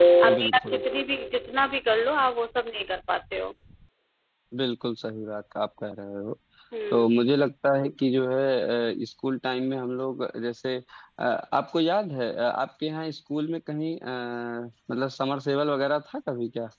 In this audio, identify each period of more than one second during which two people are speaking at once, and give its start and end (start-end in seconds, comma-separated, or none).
none